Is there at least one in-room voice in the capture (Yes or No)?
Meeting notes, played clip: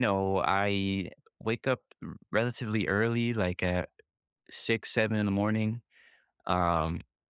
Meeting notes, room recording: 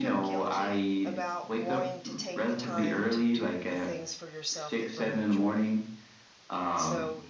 Yes